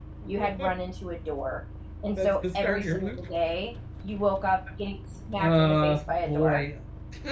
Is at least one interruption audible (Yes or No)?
Yes